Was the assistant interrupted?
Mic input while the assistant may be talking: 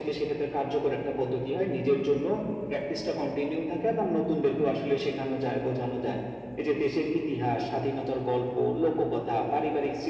No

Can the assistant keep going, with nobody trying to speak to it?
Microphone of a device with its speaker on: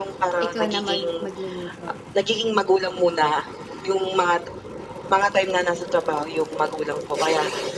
No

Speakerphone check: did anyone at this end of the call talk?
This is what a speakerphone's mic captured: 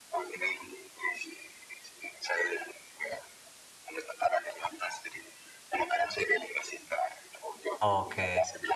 Yes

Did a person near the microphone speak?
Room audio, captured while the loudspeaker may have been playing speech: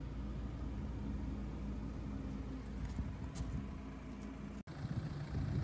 No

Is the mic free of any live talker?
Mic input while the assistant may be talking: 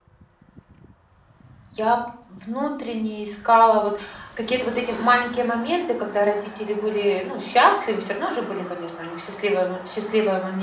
No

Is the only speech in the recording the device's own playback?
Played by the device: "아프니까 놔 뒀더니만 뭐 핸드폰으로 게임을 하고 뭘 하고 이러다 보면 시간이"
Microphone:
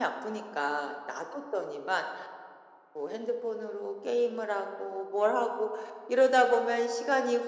Yes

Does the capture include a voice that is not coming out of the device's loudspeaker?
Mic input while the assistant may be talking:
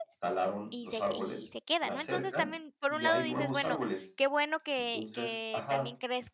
Yes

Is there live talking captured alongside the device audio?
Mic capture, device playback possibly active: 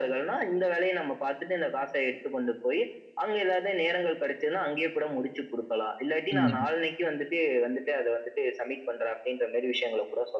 Yes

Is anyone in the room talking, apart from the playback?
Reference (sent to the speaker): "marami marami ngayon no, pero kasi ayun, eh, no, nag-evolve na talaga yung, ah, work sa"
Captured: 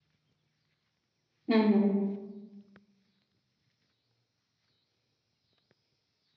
Yes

